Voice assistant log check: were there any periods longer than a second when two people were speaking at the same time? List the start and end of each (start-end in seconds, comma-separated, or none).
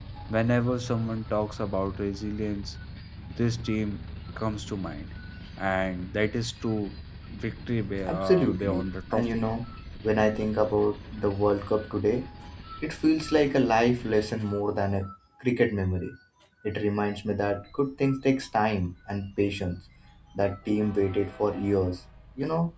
8.1-9.4